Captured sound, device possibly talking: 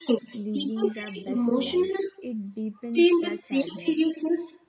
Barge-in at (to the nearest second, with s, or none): 0 s